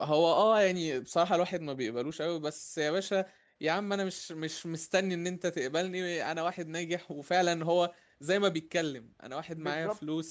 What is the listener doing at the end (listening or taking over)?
listening